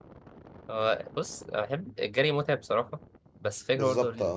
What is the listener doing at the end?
listening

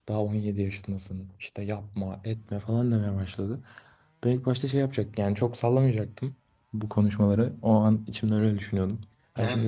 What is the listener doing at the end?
listening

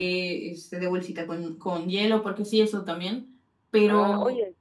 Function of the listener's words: taking over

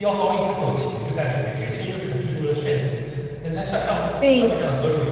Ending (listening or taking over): listening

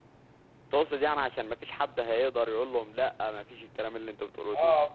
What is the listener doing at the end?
taking over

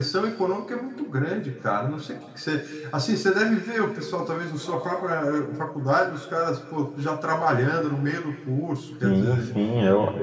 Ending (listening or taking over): taking over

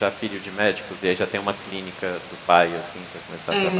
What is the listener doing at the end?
taking over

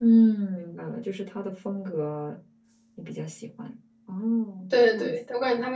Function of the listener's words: taking over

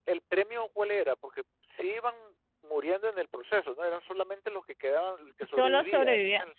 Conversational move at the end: taking over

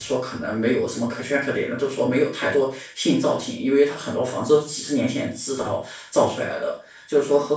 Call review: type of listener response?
listening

